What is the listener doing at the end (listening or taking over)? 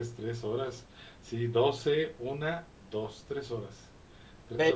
taking over